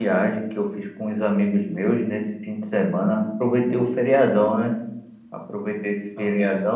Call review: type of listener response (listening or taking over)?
listening